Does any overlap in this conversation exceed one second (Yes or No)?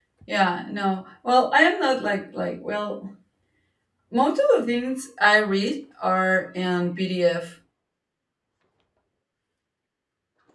No